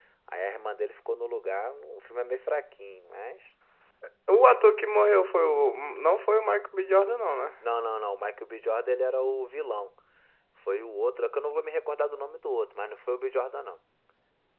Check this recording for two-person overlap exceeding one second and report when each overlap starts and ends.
none

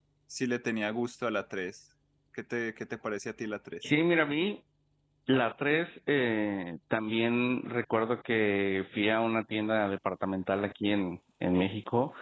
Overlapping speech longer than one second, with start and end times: none

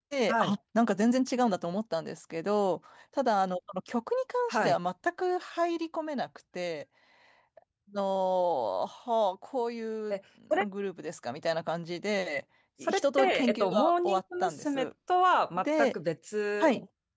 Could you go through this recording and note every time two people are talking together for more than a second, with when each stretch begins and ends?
12.8-14.8

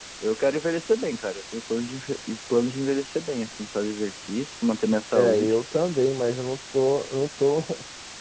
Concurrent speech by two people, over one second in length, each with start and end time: none

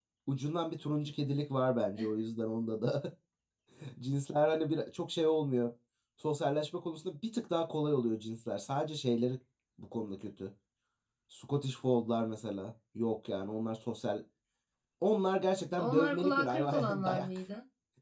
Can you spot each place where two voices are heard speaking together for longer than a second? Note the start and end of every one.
15.8-17.3

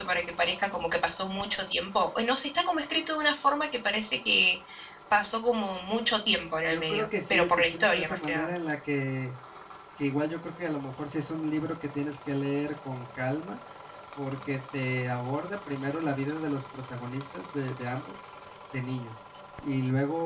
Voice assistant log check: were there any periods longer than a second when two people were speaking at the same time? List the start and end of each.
6.7-8.5

